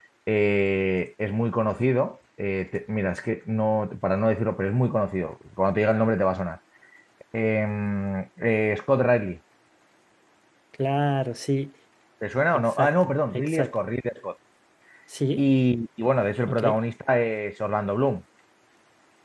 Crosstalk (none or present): present